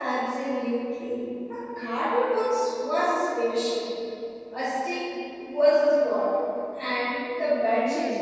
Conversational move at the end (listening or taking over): taking over